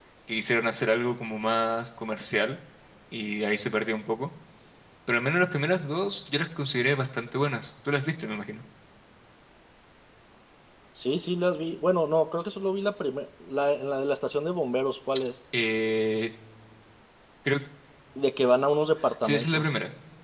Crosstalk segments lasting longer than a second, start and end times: none

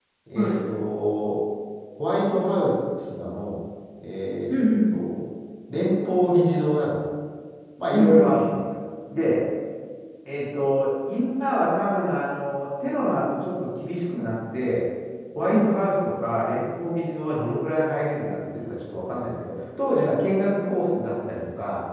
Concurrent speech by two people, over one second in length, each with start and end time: none

